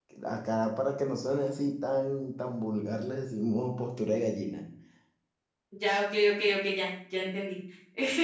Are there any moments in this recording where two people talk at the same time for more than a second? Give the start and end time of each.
none

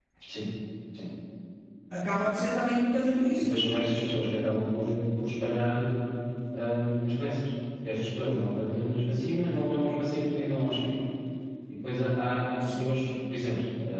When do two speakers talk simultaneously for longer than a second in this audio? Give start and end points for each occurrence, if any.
none

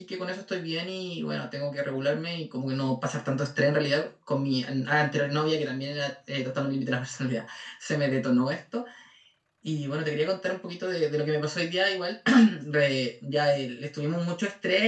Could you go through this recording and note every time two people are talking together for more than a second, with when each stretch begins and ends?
none

